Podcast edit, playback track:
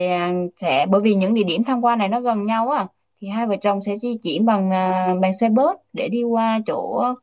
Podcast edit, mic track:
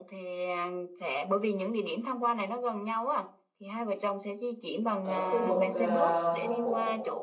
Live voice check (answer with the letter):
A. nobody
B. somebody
B